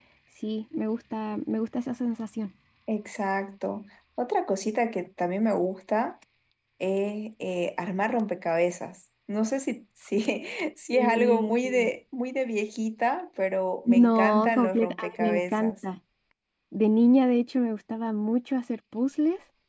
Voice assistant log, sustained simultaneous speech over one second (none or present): present